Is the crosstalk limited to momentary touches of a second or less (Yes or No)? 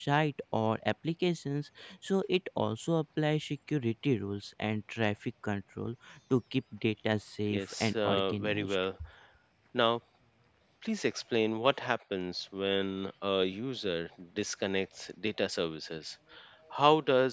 No